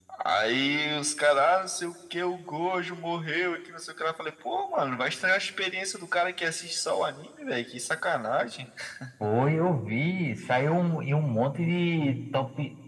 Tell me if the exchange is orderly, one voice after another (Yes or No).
Yes